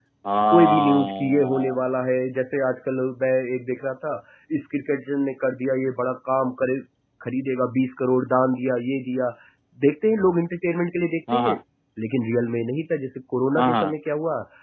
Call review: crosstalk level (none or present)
present